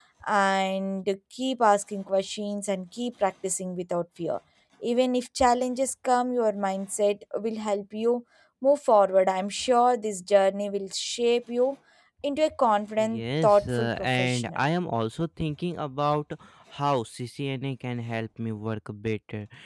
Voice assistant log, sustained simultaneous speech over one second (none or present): present